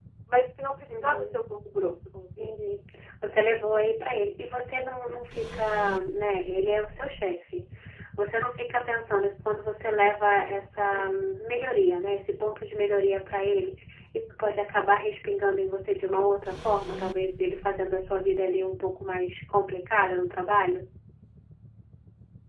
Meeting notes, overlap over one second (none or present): none